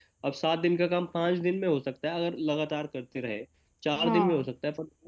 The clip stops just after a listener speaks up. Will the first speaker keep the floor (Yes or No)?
Yes